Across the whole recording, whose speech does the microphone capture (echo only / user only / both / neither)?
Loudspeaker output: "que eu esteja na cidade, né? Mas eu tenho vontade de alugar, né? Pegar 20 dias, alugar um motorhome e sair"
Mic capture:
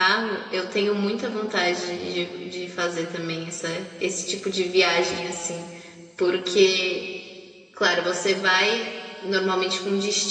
user only